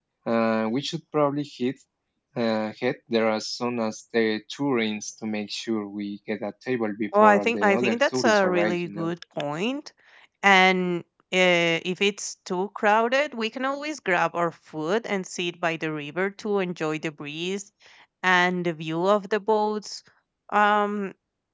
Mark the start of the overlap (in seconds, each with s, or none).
7.1 s